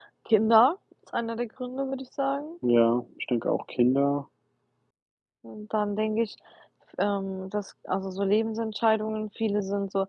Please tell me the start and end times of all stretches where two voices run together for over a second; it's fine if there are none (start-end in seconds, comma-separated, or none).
none